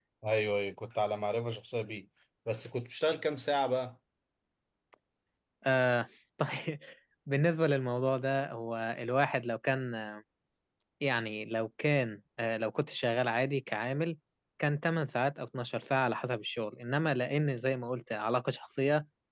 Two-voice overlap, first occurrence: none

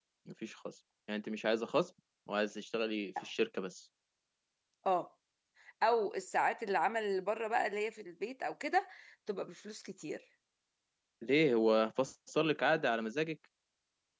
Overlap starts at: none

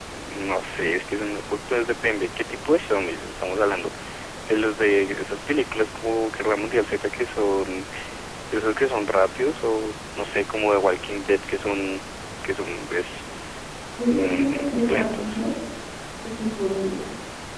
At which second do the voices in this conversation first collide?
14 s

